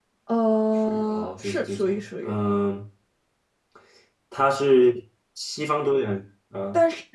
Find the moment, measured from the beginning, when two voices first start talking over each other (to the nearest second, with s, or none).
1 s